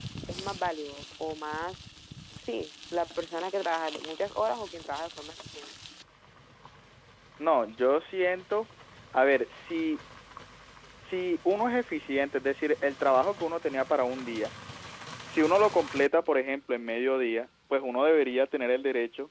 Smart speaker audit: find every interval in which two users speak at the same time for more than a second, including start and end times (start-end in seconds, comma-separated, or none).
none